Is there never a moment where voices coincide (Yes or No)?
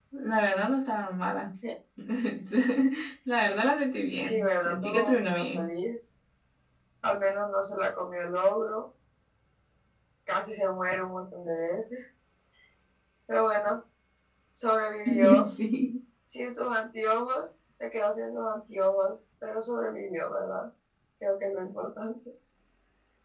No